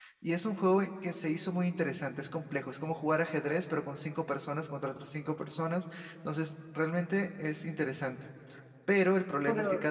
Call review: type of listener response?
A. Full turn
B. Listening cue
B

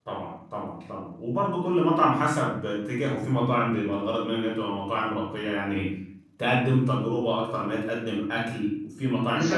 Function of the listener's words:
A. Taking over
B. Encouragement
A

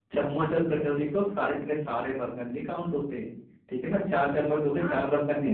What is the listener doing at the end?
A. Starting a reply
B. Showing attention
A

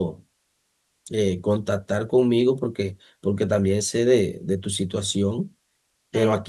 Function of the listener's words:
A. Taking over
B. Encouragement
B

